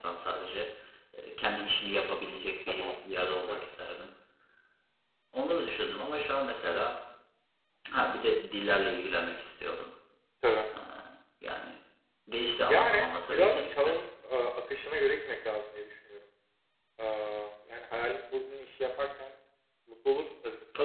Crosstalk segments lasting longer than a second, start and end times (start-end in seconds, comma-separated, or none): 12.7-14.0